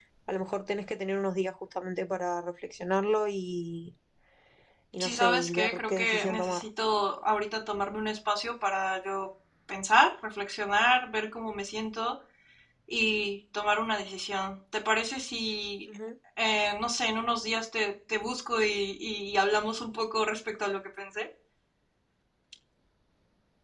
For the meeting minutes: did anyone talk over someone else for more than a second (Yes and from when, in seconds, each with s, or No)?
Yes, from 5.0 s